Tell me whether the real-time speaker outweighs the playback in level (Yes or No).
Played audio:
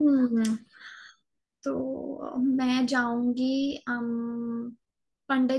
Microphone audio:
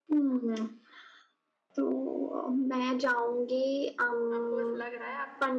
No